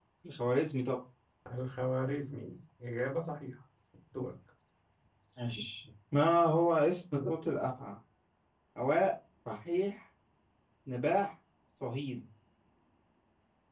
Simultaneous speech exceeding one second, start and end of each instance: none

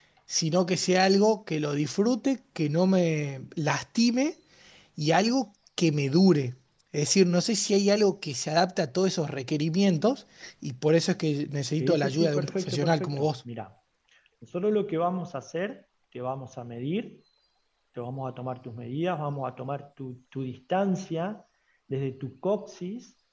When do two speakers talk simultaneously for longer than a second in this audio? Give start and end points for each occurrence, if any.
11.8-13.3

